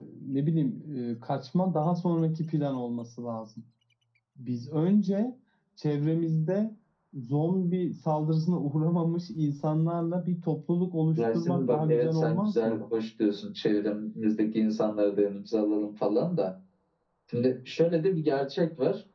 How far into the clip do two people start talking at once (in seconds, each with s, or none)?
11.2 s